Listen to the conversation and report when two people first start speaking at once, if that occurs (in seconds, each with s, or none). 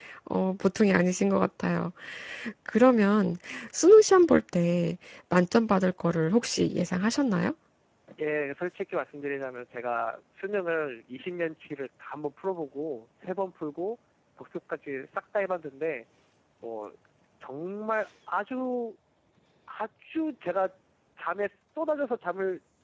none